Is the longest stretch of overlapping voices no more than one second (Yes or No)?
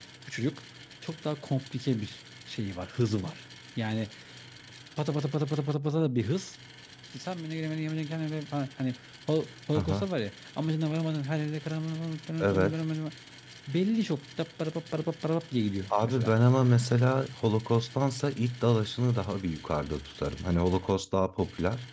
Yes